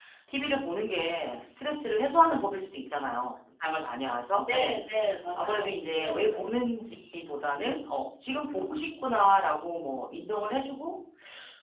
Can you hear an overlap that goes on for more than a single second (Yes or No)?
No